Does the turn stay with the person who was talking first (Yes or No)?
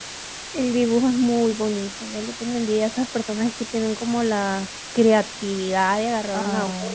Yes